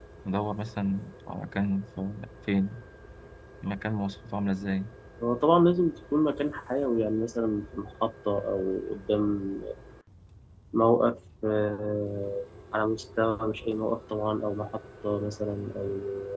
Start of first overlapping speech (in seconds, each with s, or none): none